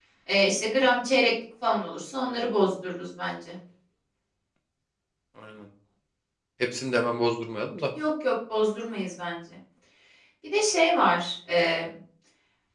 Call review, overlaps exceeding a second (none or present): none